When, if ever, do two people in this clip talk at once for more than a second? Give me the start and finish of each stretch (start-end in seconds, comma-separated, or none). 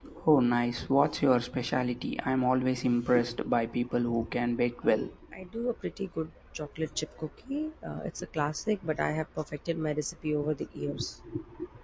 none